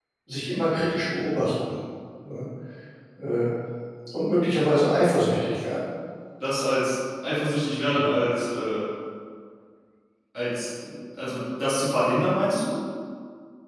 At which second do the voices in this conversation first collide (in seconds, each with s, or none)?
none